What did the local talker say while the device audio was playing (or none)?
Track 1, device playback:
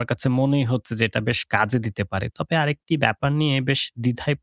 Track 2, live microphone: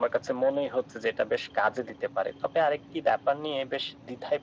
none